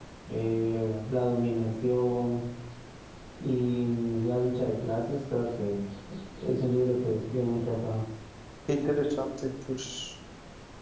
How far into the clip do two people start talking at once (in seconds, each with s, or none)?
none